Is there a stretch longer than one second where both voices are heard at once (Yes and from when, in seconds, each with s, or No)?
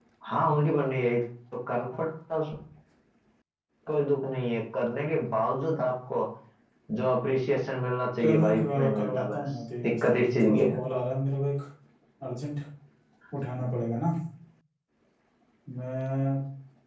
Yes, from 8.2 s